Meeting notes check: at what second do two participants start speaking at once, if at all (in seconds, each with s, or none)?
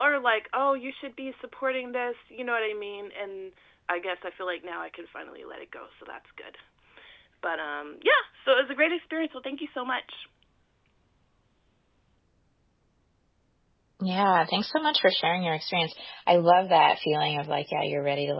none